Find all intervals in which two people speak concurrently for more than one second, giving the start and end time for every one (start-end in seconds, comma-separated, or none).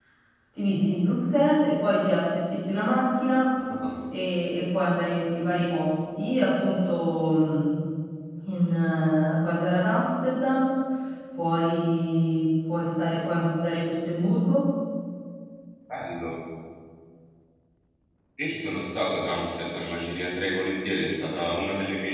none